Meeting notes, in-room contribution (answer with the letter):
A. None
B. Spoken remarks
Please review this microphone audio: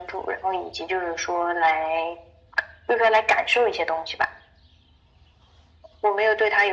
A